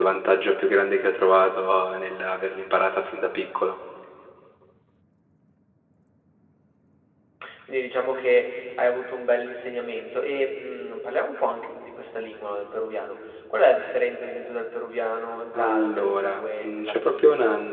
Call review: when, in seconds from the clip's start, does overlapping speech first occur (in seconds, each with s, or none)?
15.5 s